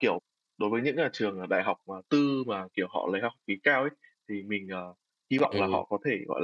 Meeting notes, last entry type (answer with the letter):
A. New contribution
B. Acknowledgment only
B